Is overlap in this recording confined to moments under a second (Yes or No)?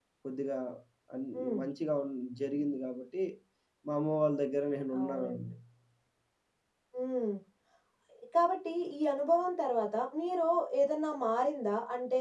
Yes